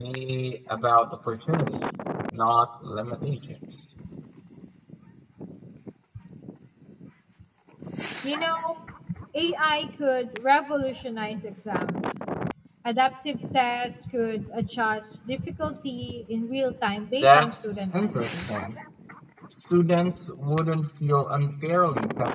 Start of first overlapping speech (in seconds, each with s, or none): 17.1 s